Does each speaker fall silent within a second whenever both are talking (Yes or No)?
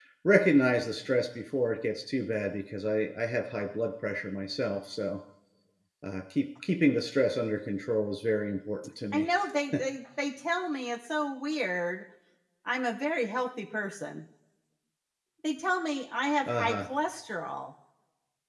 Yes